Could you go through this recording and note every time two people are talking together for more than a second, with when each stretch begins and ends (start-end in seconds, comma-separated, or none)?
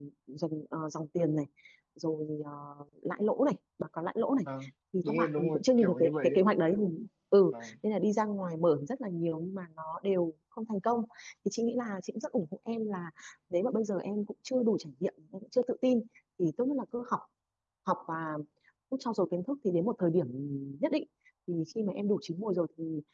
5.0-6.4